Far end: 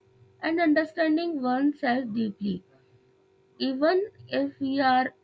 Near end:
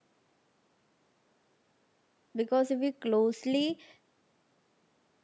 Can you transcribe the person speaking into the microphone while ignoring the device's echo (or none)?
because if we closely